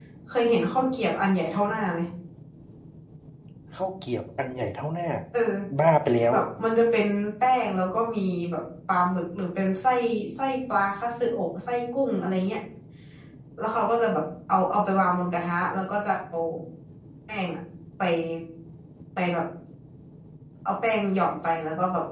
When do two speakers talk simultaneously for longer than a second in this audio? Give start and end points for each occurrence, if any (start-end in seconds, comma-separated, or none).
none